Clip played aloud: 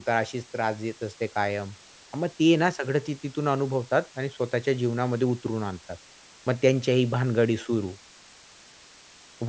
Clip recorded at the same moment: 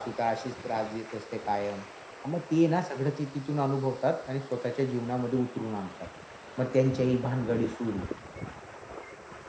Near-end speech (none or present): none